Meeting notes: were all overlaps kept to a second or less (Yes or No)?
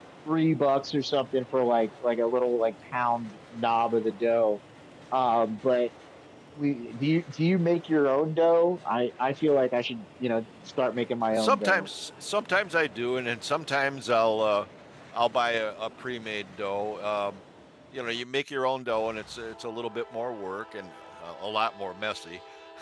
Yes